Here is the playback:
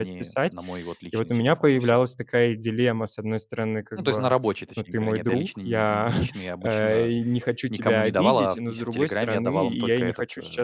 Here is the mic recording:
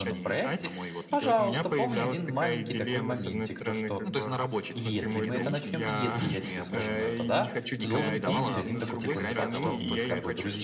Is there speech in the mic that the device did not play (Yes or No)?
Yes